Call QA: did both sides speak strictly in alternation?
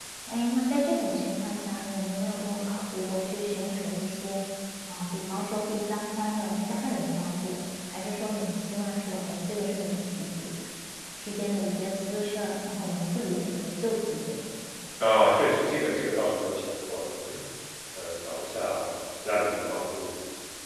Yes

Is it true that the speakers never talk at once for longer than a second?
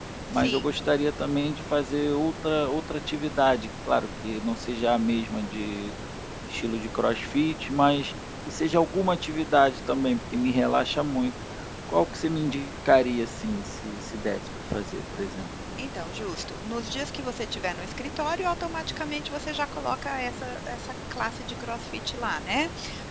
Yes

